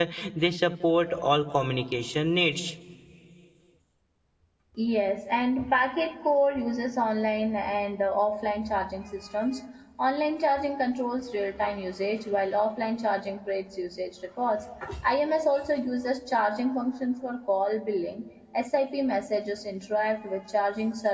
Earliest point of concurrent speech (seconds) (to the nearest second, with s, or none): none